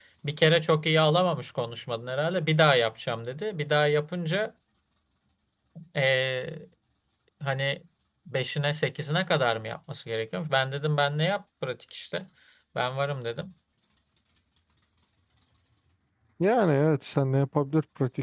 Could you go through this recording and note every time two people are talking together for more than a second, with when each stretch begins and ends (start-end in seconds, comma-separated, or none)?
none